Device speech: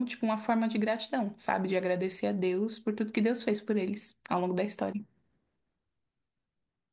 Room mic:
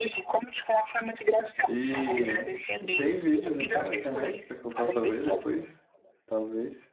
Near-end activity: present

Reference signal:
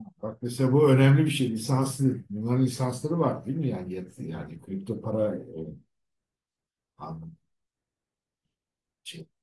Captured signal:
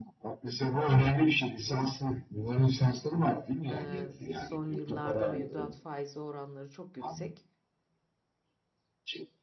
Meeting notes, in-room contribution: present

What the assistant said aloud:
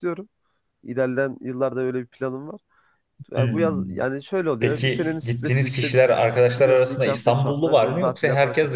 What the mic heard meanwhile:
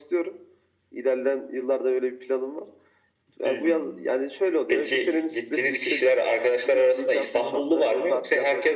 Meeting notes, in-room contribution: none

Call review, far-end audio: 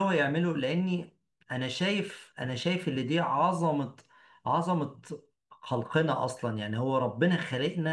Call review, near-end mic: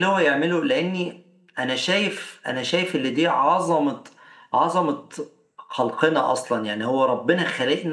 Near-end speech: none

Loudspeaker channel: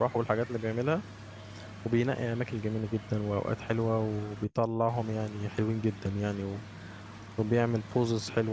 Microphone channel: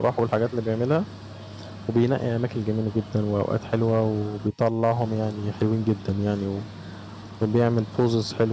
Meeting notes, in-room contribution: none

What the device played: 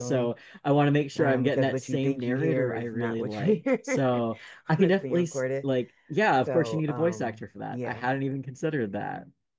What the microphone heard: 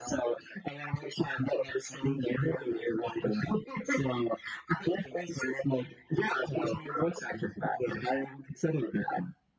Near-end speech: none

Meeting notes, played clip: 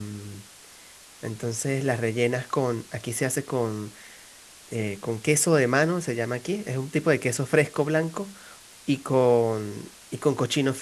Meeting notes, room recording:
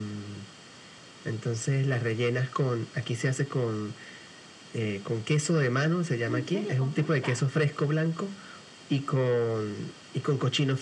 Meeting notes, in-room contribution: present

